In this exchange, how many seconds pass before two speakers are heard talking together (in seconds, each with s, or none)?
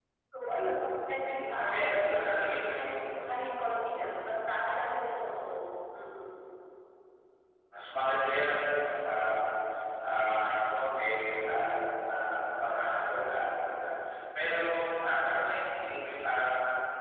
1.1 s